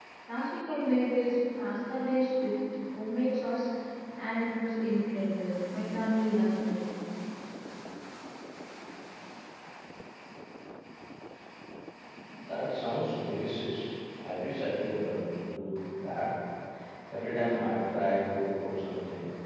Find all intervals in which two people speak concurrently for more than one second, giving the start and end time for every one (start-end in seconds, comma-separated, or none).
none